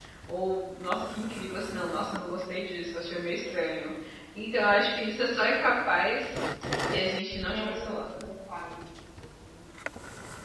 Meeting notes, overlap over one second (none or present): none